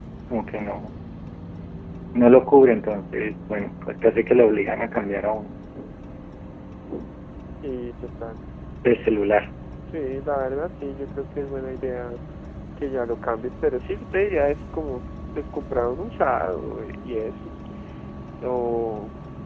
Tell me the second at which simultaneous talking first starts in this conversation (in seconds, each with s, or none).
none